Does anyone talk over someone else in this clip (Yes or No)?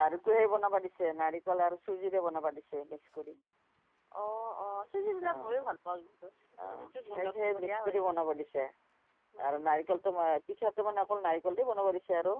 Yes